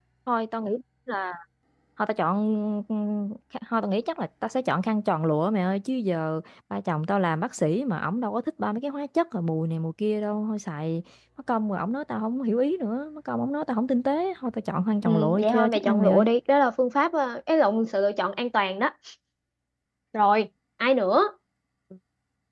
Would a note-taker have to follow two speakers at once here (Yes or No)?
Yes